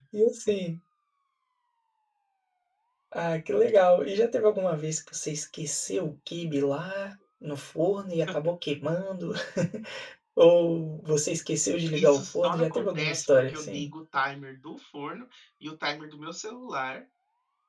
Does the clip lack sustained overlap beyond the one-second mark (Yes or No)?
No